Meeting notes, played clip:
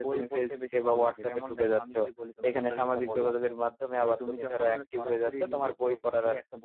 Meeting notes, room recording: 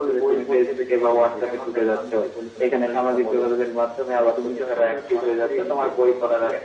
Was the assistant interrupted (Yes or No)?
No